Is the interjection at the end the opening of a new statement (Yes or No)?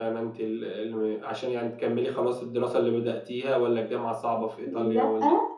Yes